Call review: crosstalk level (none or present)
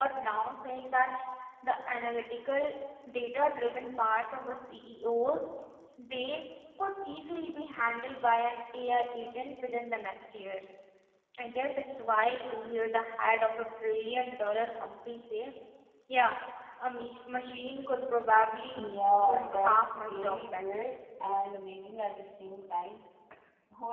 present